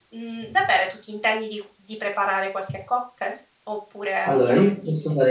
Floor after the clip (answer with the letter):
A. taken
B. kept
A